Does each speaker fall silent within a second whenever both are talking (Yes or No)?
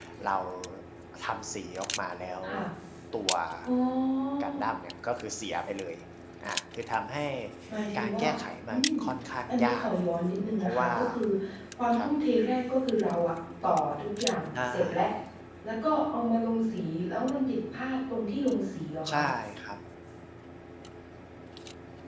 Yes